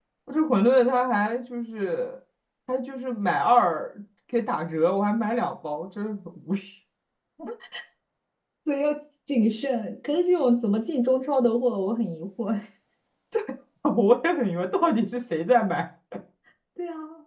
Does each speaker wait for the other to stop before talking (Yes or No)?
Yes